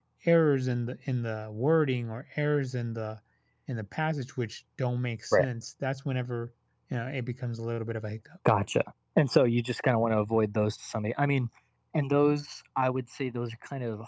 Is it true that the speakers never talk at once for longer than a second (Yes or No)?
Yes